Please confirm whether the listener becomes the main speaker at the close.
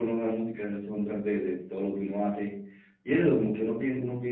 No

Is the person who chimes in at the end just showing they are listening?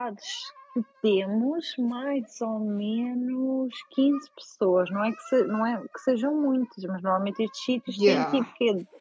Yes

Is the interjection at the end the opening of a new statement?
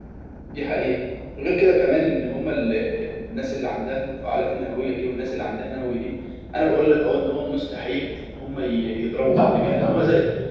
No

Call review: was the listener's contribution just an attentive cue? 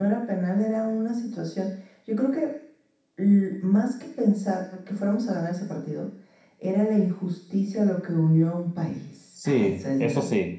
No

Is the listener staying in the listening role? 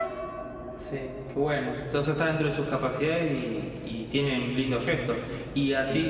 Yes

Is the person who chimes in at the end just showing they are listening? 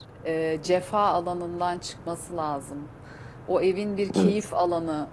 Yes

